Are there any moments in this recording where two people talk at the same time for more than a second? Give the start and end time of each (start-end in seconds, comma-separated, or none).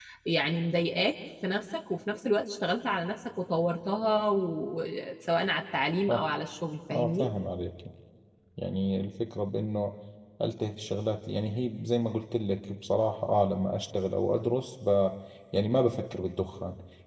none